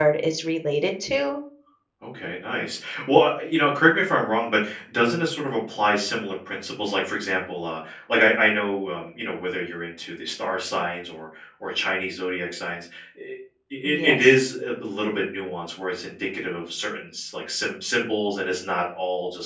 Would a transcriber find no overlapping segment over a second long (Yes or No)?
Yes